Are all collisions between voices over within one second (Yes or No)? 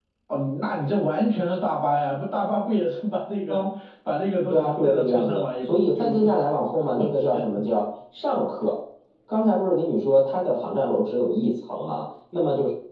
No